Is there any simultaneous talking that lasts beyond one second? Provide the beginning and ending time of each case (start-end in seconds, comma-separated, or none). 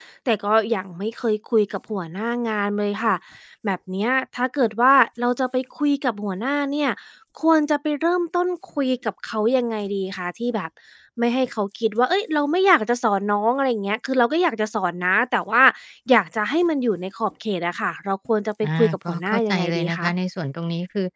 18.8-20.1